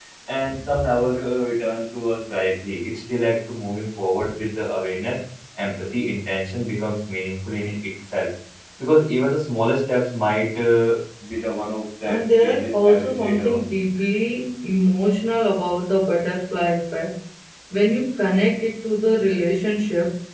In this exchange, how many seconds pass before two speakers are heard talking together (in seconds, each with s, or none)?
12.1 s